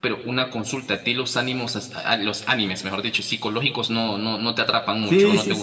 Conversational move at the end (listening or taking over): taking over